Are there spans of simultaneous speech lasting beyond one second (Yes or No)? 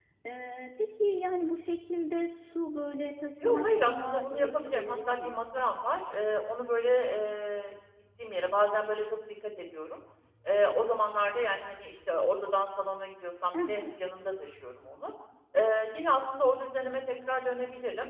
Yes